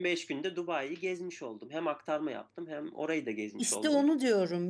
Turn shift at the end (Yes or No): Yes